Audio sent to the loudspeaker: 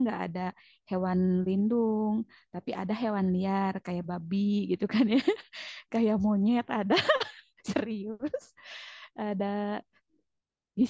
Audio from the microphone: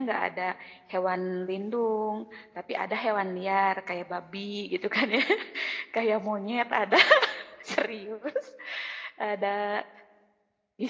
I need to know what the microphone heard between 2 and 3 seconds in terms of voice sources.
echo only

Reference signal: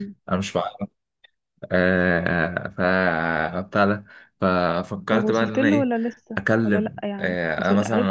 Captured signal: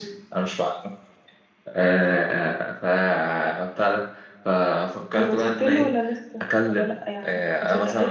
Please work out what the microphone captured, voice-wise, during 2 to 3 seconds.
echo only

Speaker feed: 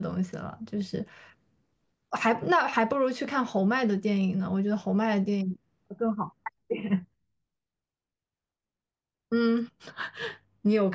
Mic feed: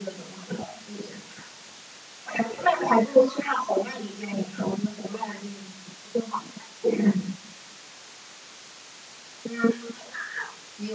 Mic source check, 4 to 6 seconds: echo only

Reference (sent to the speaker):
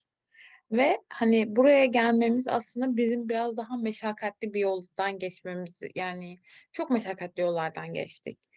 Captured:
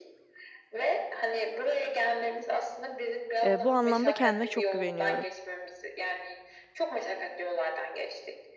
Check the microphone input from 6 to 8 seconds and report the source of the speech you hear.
echo only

